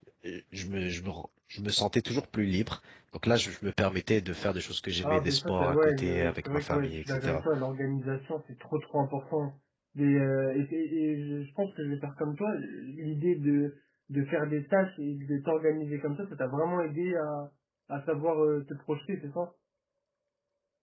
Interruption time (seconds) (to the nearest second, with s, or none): 5 s